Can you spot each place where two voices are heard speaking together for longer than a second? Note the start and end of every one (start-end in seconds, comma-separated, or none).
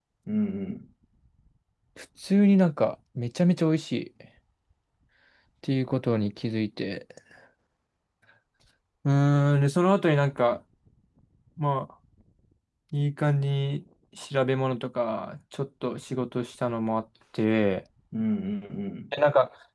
none